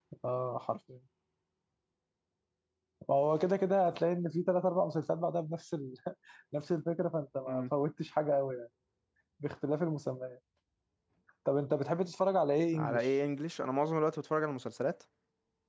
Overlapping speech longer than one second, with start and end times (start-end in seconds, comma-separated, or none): none